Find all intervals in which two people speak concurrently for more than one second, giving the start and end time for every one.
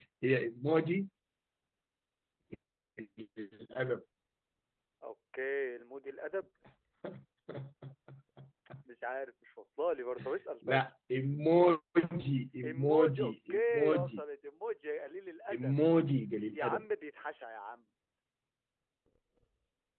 12.6-14.2

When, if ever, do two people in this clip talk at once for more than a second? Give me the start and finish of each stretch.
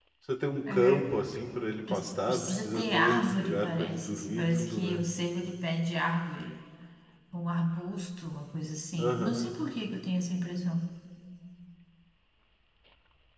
1.9-5.0

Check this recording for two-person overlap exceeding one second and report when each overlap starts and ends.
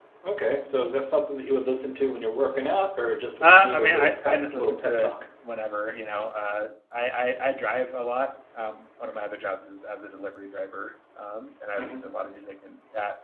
3.4-5.2

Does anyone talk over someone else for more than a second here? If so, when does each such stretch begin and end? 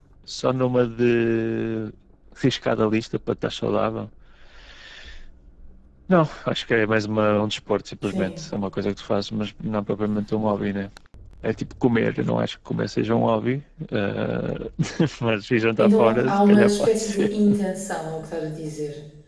15.8-17.3

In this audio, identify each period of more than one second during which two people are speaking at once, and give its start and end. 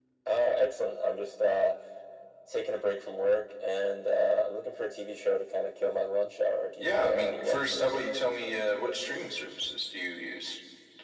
6.8-8.1

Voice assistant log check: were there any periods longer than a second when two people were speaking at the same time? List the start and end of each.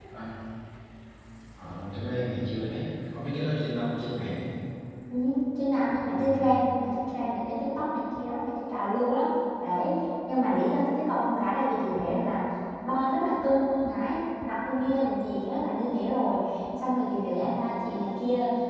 none

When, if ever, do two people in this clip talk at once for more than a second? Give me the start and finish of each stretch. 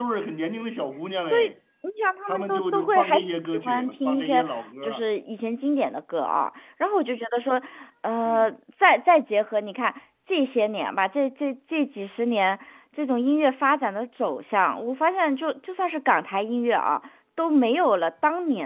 2.3-5.0

